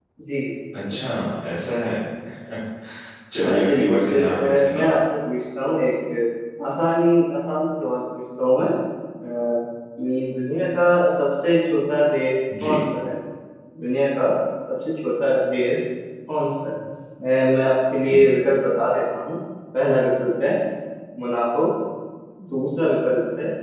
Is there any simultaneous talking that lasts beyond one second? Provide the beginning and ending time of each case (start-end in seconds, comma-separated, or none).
3.4-4.9